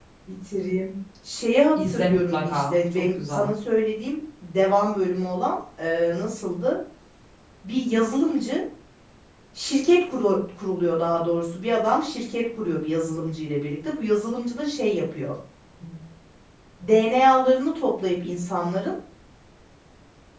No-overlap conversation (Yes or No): No